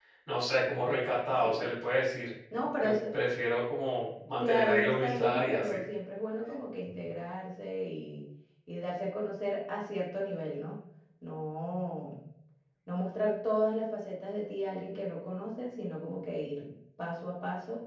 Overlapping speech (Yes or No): Yes